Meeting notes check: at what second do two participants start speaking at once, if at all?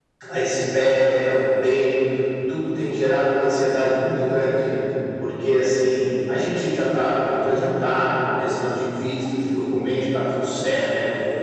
none

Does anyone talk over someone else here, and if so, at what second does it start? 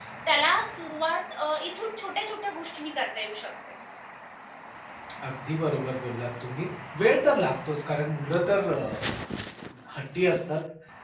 none

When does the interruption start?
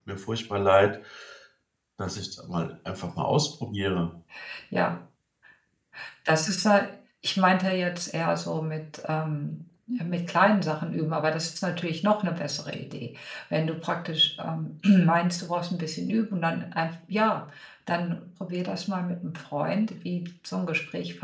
none

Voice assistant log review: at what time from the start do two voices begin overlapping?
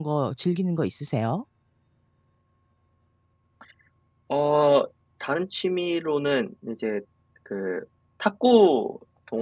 none

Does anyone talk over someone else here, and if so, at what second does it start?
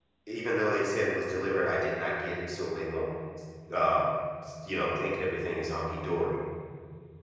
none

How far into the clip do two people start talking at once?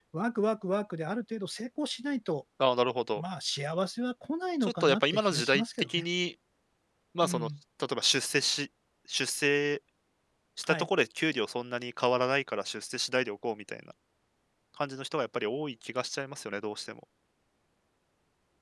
4.6 s

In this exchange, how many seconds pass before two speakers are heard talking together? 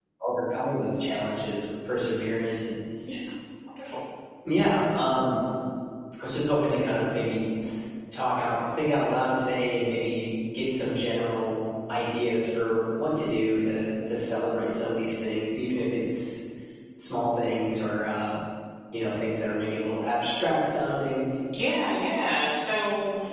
none

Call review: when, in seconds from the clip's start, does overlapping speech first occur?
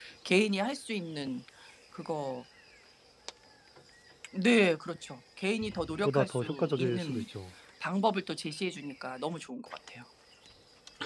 6.0 s

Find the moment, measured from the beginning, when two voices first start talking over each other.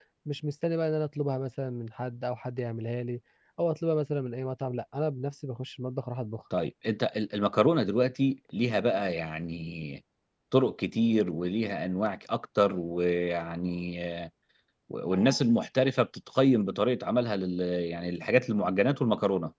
none

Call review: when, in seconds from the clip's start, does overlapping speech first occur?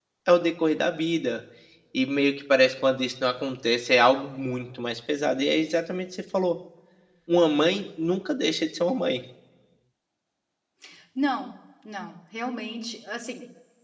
none

